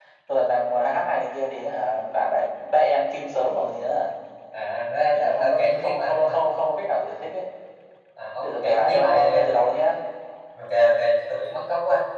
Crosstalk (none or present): present